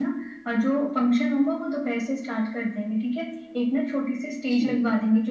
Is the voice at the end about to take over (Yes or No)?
No